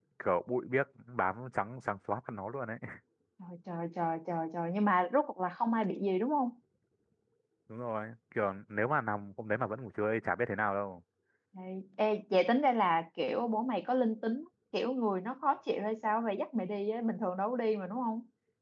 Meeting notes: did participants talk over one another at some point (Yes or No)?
No